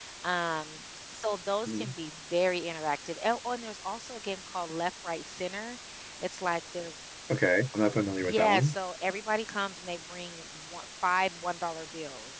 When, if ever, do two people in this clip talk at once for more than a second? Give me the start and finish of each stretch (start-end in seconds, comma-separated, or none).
none